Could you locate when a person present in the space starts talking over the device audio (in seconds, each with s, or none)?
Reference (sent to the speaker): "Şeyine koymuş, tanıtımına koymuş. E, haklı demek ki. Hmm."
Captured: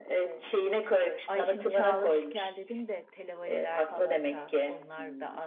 1.3 s